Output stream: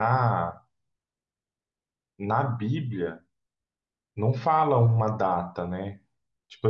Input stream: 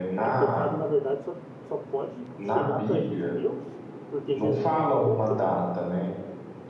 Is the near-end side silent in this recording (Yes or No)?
No